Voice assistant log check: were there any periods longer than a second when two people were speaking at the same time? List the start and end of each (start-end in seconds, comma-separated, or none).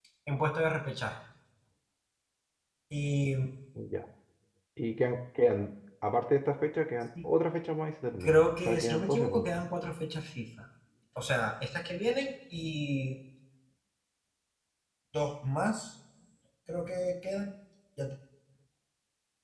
8.2-9.6